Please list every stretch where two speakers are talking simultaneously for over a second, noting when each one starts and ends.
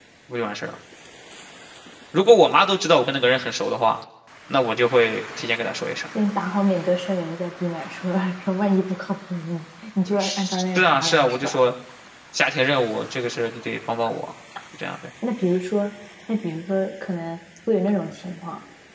10.2-11.6

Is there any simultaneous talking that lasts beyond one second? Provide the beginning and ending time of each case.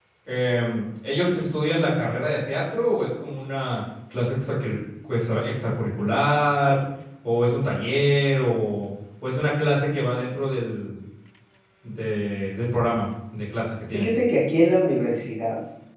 none

